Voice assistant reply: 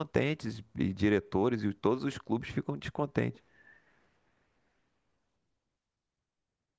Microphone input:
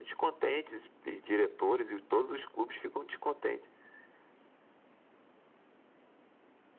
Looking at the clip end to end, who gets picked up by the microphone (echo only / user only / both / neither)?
echo only